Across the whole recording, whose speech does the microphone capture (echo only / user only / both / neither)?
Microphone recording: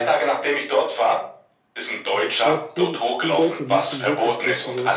both